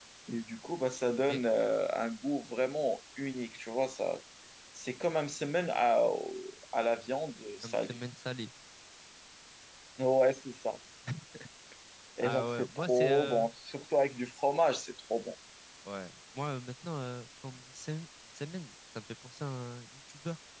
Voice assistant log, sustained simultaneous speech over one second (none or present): present